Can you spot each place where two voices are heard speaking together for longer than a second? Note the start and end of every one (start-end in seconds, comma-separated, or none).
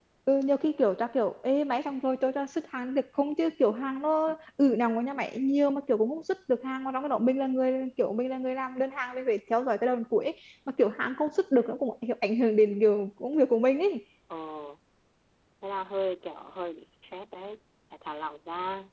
none